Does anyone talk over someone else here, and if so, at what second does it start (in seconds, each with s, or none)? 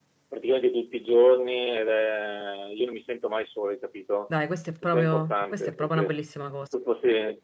4.8 s